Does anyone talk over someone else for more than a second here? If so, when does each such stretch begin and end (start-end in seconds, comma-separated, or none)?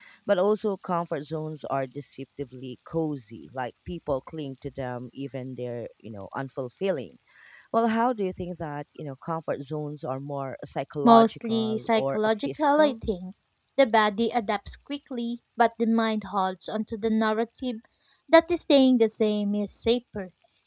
11.0-12.9